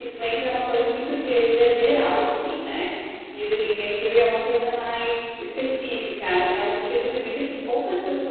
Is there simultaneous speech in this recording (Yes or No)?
No